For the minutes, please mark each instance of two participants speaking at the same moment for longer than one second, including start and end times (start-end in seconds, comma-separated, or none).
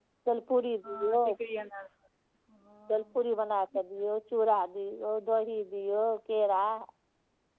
none